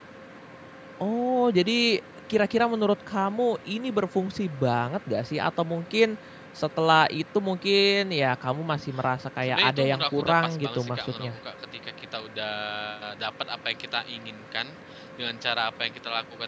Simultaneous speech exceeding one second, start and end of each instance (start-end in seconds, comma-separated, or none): 9.4-11.4